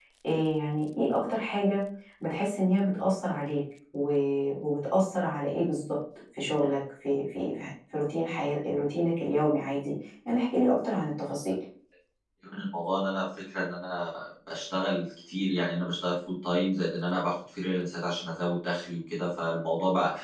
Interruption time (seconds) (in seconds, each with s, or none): none